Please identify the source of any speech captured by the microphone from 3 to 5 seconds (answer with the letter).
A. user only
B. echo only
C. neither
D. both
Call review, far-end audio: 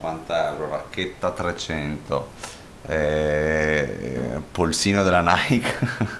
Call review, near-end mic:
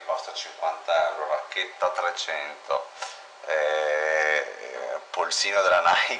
B